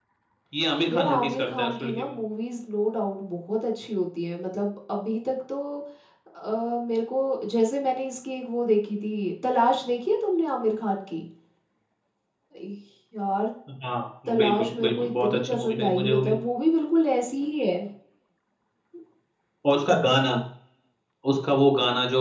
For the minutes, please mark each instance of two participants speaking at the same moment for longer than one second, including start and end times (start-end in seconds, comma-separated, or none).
0.9-2.1, 14.2-16.3